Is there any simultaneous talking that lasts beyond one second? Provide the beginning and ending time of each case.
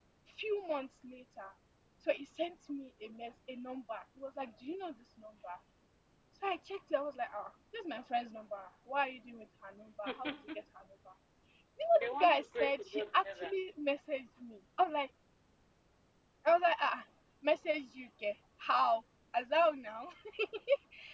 12.0-13.5

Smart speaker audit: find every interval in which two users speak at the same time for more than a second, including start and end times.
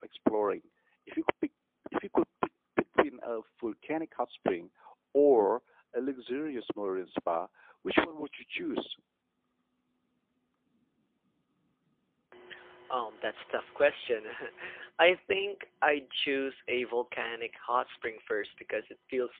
none

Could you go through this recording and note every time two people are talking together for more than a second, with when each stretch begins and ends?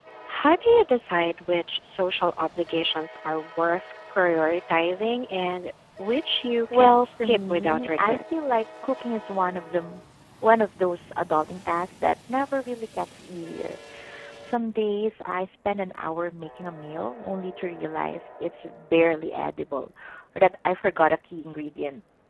6.7-8.2

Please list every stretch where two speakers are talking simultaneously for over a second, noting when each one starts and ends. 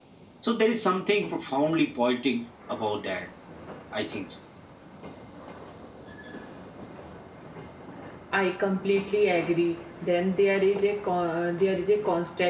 none

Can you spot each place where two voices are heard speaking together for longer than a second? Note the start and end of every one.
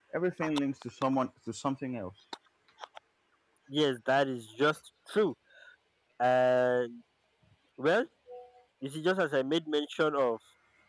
none

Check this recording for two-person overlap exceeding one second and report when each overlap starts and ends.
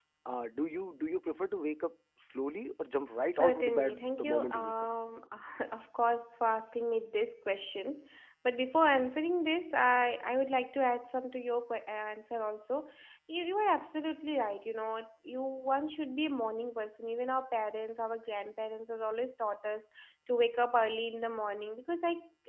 3.4-4.7

